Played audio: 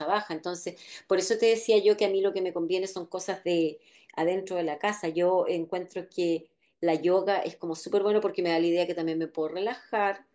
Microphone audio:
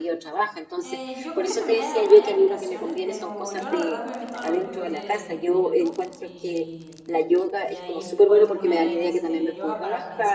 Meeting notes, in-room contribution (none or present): present